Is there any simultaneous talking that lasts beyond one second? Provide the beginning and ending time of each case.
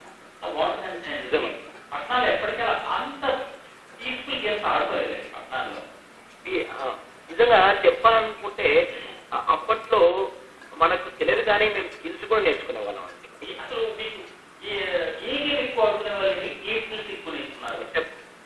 none

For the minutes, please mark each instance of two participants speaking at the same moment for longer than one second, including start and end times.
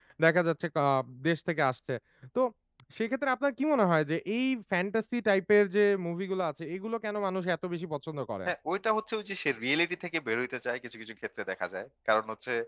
none

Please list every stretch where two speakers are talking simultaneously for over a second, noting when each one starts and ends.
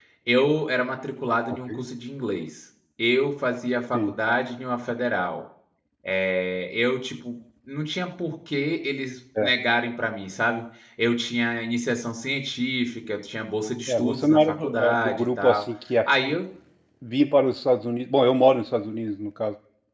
13.9-15.6

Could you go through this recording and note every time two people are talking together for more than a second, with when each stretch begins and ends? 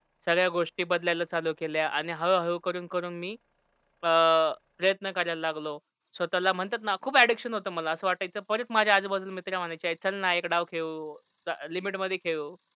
none

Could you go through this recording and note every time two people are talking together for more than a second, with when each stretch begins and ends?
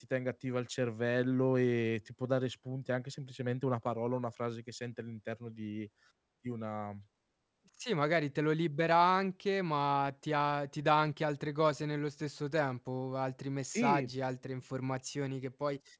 none

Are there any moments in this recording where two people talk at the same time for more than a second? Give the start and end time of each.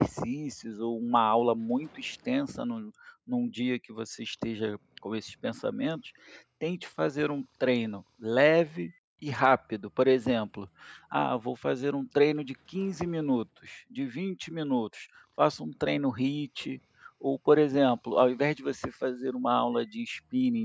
none

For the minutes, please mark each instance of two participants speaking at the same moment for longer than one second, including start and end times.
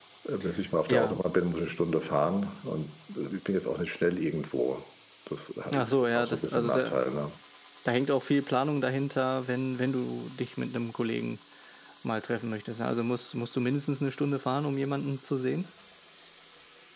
5.7-7.0

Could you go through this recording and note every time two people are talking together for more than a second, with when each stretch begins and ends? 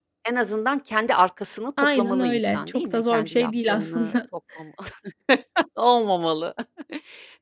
2.0-4.1

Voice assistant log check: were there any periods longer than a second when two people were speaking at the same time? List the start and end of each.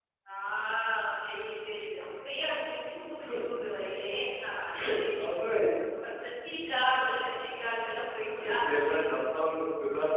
none

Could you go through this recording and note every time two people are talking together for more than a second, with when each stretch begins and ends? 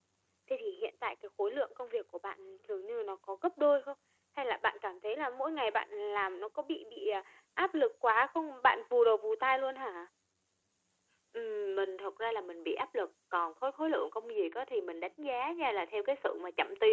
none

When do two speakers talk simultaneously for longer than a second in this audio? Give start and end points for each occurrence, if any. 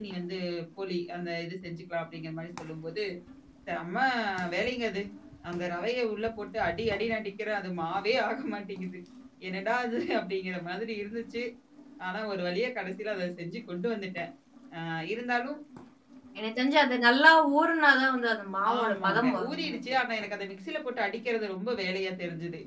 18.8-20.0

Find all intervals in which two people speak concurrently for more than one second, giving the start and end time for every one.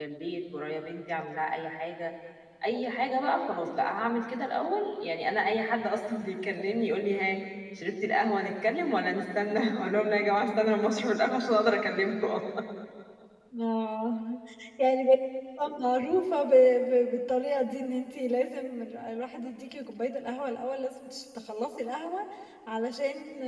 none

